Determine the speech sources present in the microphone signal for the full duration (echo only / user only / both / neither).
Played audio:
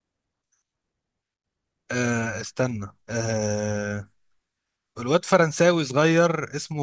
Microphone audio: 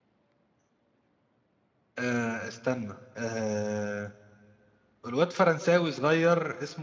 echo only